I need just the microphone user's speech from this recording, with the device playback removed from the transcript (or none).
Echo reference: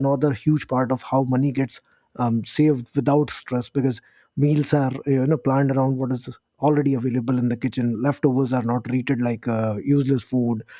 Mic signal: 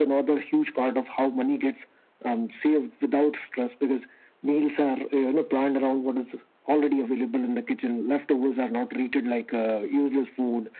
none